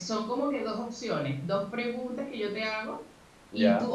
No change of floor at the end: Yes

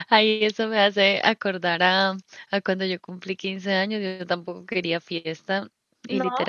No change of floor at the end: Yes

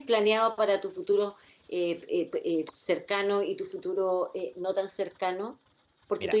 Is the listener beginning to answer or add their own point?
No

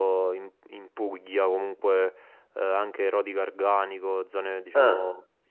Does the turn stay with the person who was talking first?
Yes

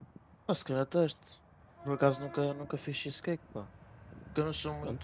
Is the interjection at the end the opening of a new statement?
No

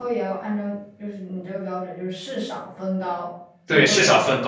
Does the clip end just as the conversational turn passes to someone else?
Yes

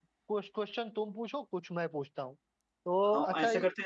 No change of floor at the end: No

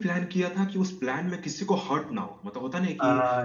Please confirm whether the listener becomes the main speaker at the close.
No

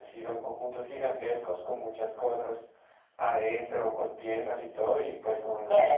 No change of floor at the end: No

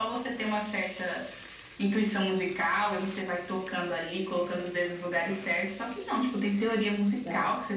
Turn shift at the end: No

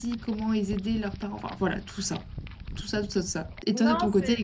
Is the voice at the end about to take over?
No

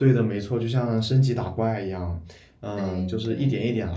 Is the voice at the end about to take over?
No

